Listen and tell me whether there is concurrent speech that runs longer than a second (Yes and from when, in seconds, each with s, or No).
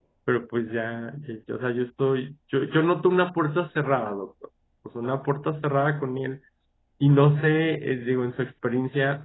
No